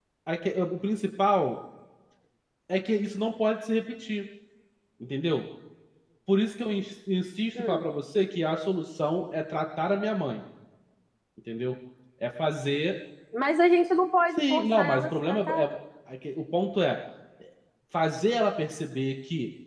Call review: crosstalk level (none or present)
present